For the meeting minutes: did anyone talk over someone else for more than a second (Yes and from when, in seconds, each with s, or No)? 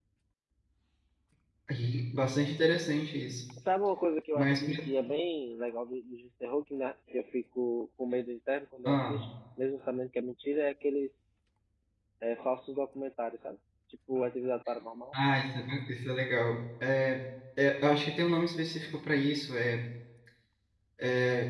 No